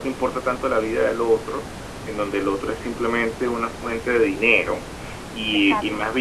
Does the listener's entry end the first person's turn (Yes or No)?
No